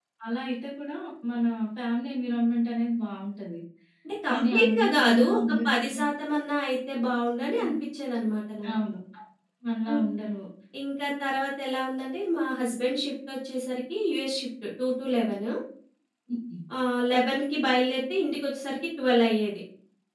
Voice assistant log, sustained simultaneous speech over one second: present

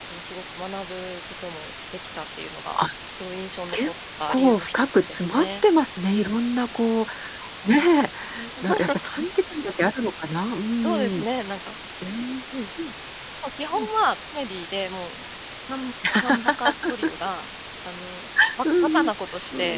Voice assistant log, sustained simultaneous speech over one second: present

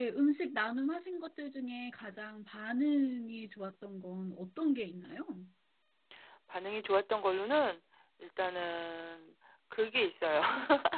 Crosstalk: none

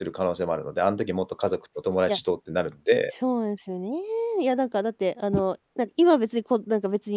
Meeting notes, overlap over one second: none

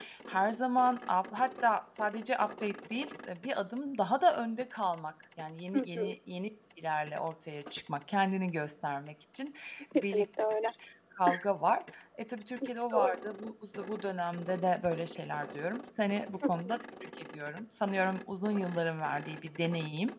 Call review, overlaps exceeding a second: none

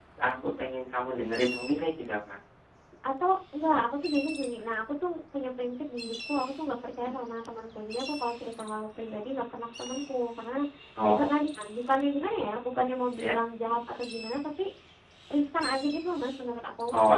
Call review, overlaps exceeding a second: none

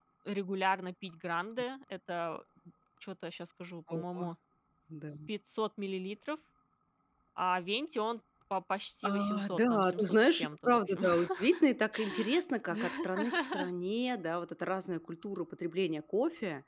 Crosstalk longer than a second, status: present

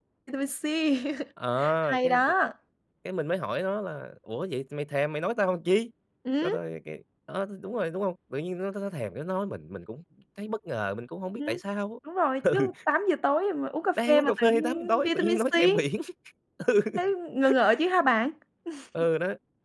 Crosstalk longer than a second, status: present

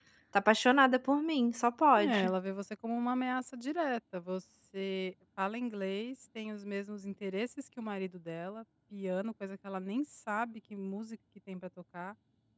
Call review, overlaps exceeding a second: none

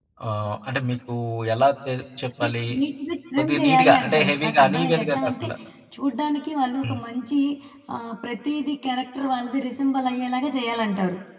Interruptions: present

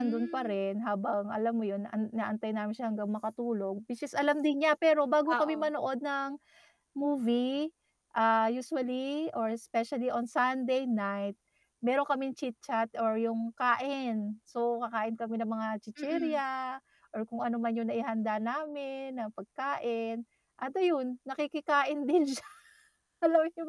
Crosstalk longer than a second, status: none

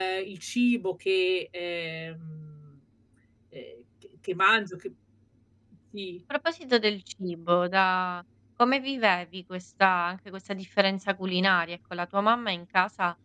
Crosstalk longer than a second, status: none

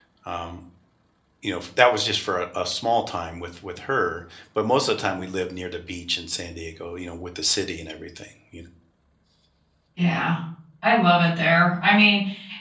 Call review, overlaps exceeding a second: none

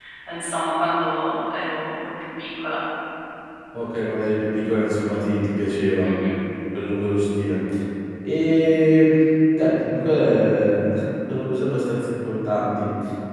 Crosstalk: none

